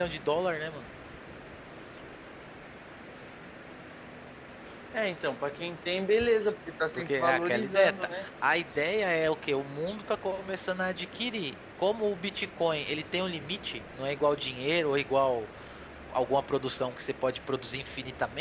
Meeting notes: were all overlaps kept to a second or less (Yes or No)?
No